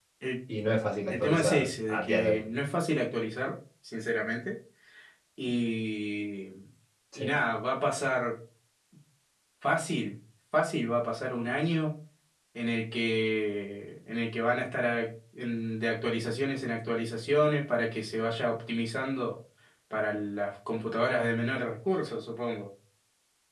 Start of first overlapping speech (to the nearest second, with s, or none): 1 s